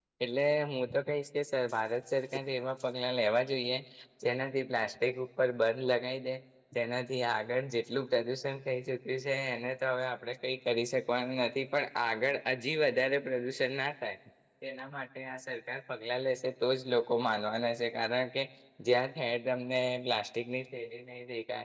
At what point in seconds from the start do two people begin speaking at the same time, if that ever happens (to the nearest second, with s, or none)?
none